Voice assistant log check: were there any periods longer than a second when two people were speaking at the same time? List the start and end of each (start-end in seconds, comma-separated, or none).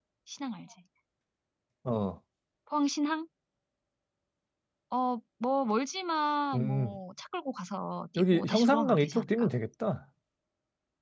8.2-9.5